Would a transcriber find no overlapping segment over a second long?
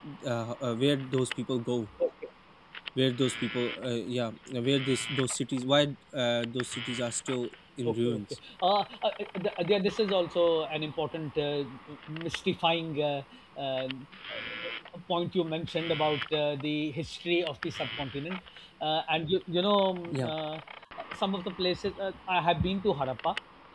Yes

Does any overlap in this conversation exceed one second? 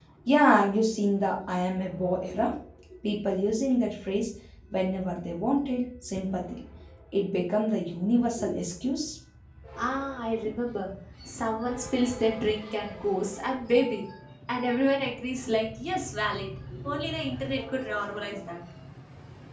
No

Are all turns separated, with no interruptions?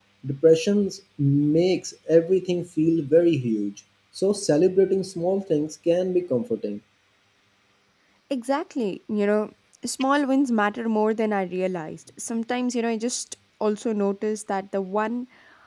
Yes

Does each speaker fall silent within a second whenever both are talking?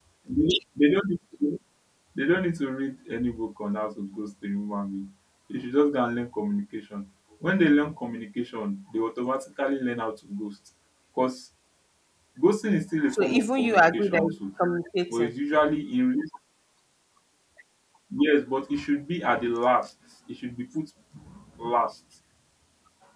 No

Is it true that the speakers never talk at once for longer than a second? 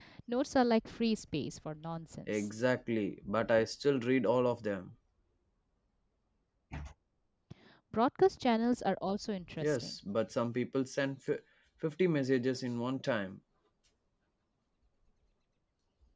Yes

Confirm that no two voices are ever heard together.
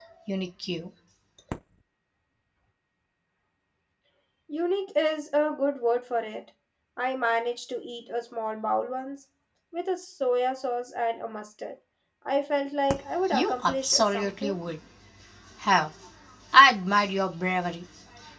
No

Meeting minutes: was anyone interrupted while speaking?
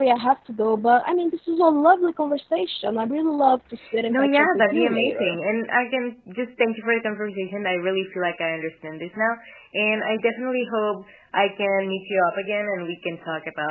Yes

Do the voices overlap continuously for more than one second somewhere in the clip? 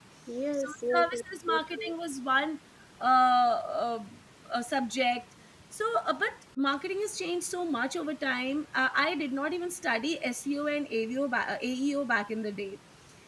Yes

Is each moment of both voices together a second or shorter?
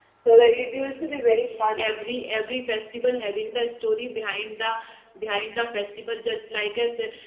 Yes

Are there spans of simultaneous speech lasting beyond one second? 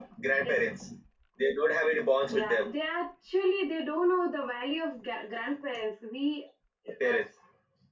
No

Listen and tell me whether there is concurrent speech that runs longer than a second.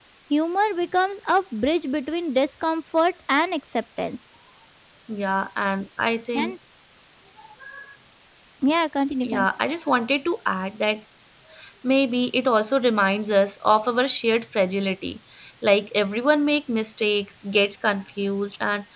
No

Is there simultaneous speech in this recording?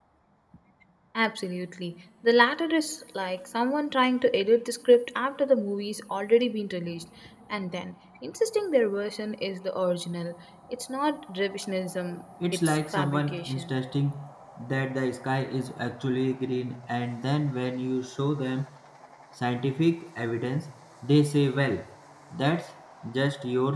Yes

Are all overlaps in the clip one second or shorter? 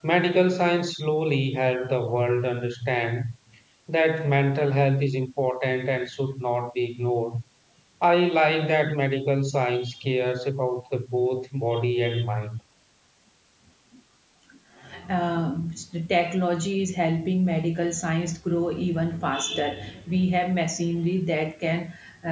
Yes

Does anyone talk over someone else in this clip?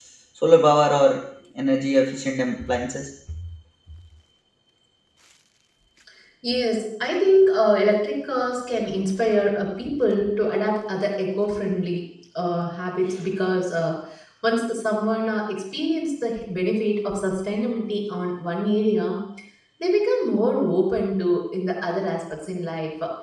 No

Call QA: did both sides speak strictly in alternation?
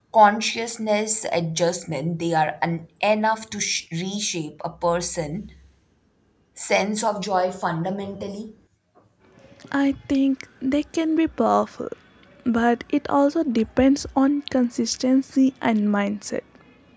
Yes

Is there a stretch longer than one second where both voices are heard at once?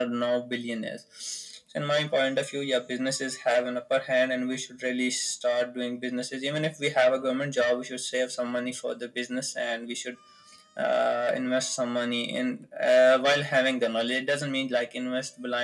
No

